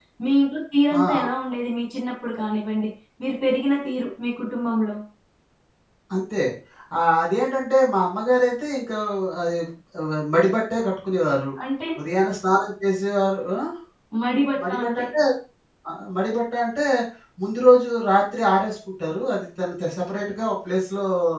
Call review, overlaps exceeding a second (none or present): none